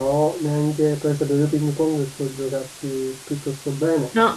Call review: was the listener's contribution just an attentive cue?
No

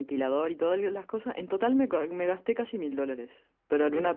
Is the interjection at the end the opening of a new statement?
No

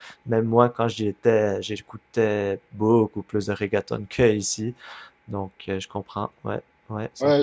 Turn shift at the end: Yes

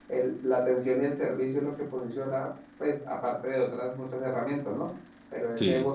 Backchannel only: Yes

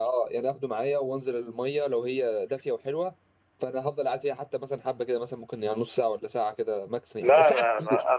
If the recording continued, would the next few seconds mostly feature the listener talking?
Yes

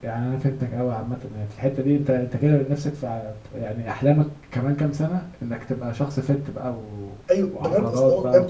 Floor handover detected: Yes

